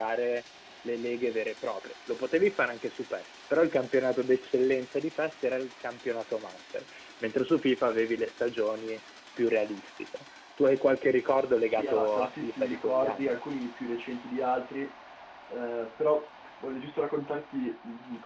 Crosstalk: present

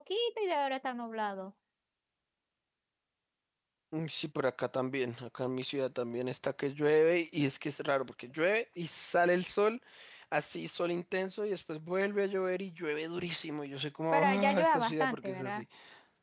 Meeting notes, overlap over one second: present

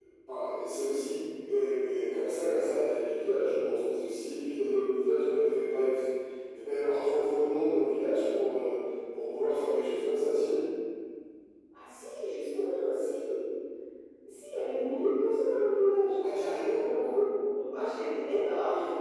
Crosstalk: none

